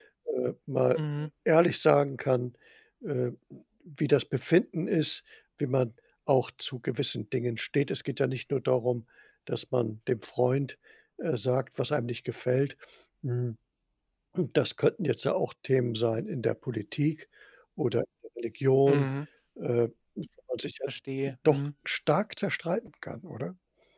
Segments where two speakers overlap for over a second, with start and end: none

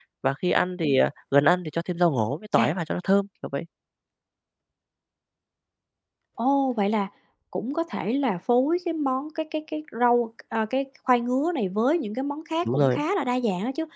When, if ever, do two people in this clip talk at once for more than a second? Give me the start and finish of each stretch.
none

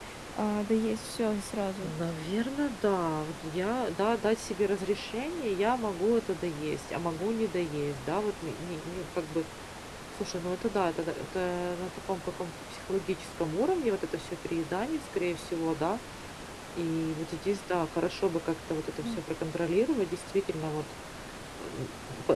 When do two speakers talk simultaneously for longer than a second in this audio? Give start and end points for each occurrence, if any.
none

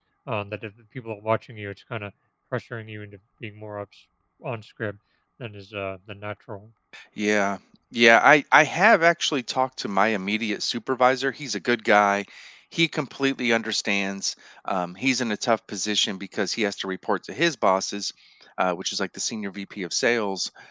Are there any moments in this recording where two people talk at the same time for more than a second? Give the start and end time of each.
none

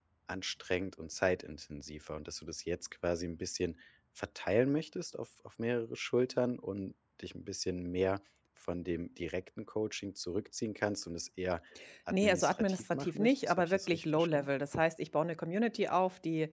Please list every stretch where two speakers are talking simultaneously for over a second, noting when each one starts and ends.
12.2-14.5

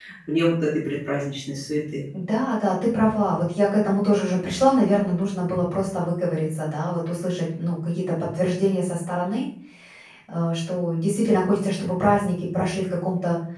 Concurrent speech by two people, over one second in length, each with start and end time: none

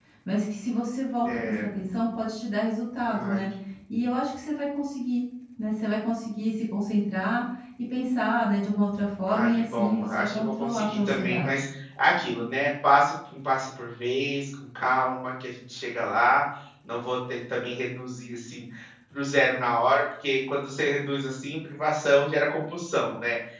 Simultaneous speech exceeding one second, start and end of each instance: 9.3-11.6

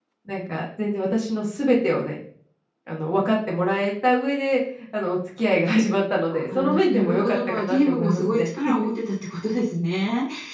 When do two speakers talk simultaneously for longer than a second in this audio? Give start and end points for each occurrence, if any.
6.3-8.5

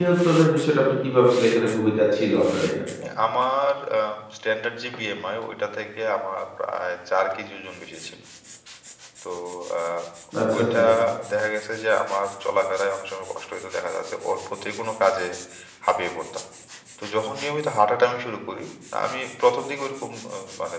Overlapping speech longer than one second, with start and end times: none

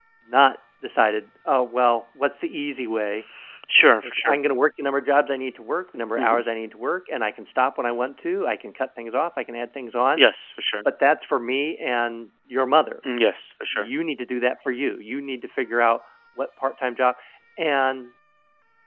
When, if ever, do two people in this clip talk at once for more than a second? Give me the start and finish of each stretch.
none

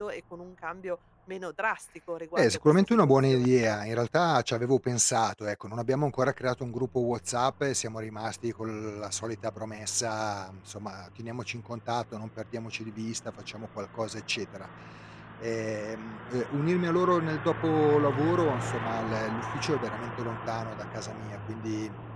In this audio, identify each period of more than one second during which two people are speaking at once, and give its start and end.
2.4-3.6

